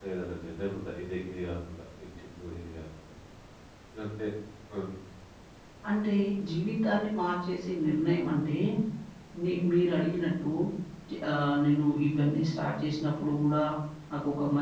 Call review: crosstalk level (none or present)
none